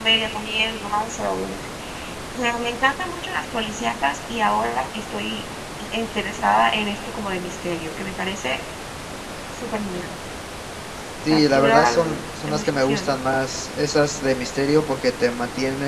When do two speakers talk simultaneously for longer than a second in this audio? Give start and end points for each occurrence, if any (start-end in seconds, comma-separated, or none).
11.3-13.1